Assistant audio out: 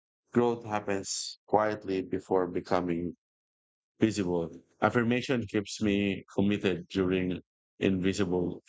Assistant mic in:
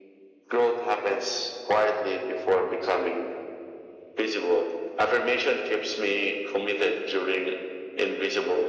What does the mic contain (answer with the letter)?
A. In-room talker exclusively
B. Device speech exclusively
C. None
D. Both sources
B